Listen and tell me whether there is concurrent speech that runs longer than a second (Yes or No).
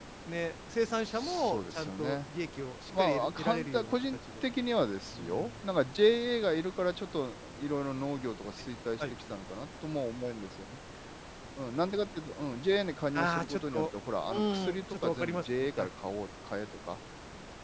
Yes